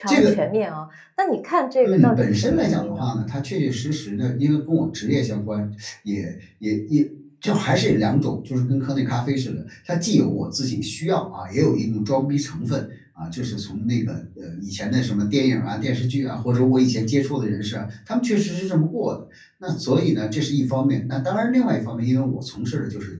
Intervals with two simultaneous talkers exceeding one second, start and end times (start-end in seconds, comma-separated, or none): 1.8-3.0